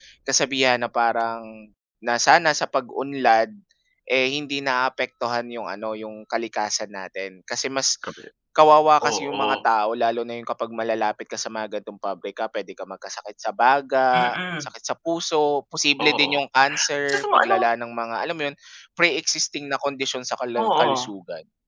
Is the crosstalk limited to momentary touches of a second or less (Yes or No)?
Yes